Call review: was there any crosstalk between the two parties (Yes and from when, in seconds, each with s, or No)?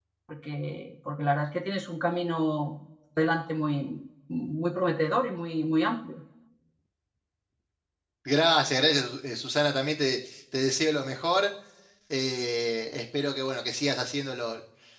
No